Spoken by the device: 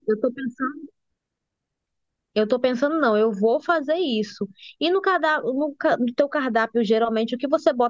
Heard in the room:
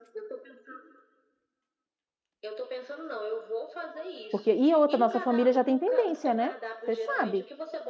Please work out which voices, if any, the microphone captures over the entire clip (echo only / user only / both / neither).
both